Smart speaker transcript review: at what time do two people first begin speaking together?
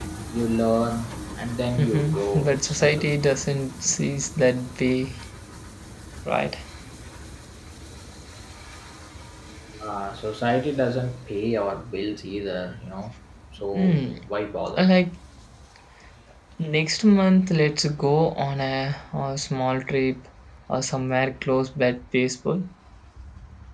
1.8 s

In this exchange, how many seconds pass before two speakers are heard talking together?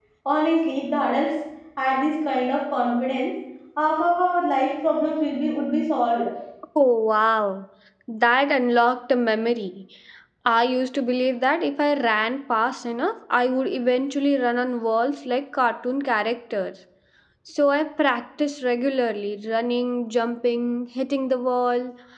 none

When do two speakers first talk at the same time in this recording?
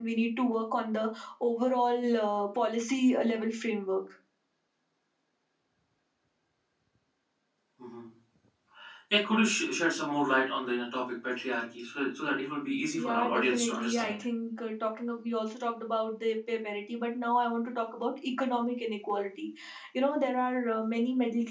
12.9 s

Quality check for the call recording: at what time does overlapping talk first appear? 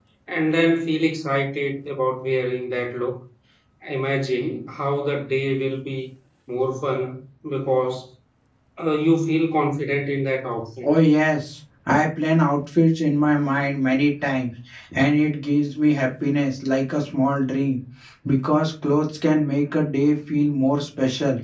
none

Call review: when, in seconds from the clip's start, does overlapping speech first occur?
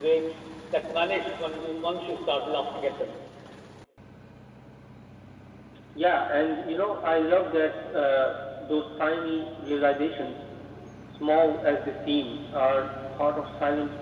none

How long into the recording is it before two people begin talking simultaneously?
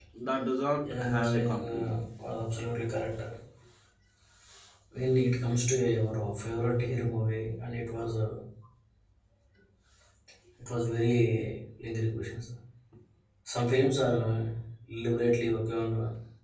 0.8 s

